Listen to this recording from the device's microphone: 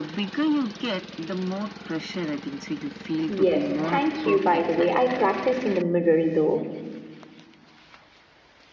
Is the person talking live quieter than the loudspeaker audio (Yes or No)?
No